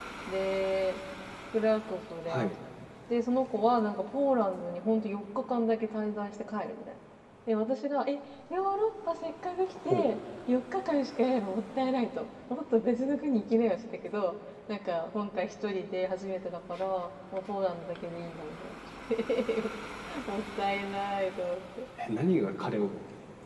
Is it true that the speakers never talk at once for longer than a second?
Yes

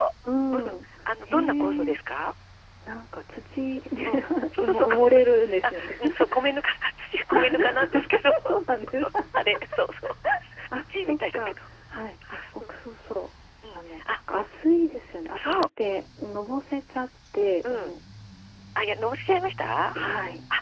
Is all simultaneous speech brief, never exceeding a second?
No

